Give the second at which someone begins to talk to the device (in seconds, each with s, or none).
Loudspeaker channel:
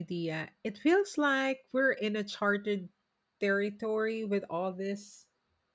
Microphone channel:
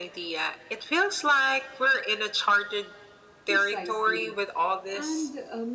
3.4 s